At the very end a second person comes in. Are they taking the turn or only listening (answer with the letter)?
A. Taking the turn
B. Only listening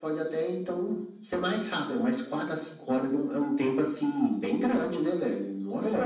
A